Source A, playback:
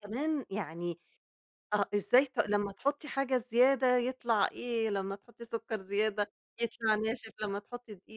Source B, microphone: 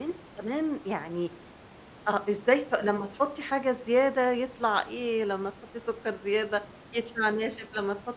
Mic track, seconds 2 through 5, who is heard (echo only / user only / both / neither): echo only